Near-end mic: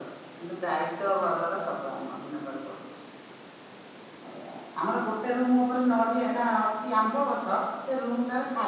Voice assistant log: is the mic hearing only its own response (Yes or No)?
Yes